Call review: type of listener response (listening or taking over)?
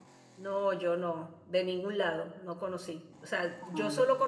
listening